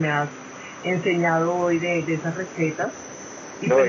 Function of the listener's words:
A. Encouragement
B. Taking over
B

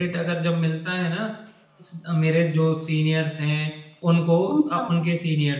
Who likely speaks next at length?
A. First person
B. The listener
A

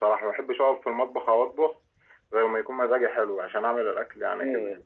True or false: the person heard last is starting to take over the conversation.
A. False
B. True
B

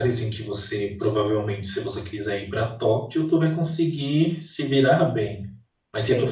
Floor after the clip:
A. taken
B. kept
B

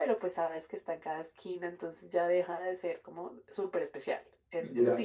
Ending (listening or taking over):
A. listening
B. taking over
B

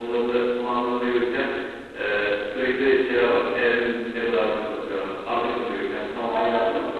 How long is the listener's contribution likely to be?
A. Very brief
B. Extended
B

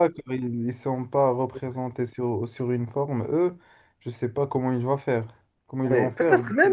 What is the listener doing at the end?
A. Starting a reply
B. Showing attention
A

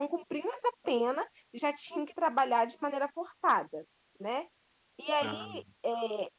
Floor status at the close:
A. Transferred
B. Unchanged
B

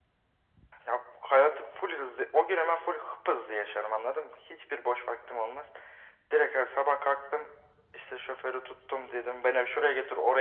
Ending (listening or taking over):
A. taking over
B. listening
B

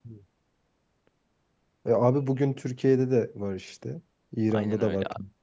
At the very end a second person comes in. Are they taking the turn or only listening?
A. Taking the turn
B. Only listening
A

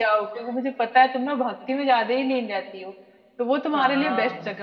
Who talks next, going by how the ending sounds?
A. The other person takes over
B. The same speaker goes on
B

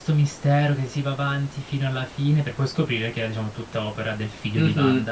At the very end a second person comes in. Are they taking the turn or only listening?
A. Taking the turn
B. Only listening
A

